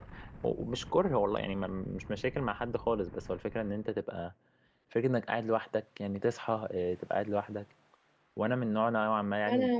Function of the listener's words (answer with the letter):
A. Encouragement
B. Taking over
B